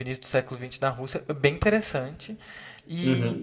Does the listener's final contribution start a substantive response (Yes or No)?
Yes